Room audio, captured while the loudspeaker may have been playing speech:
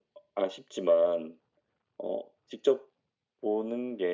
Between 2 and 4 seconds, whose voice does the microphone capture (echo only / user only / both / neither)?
echo only